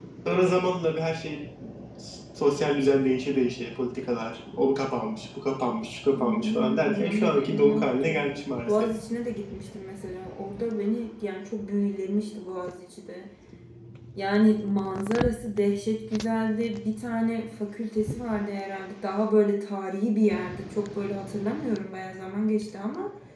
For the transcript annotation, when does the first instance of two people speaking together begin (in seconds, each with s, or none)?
6.1 s